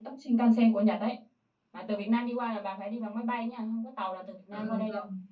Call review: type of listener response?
taking over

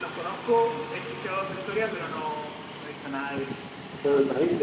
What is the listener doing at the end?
taking over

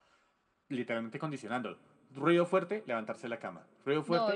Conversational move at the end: taking over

